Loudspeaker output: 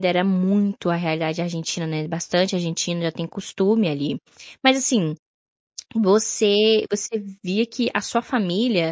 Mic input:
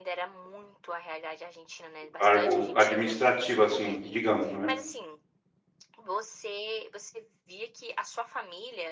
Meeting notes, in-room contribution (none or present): present